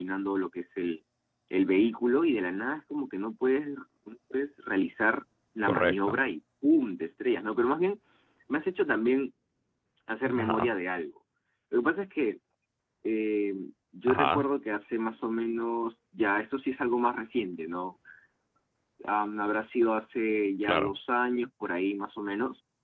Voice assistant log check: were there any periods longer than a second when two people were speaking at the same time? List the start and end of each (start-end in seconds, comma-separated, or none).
none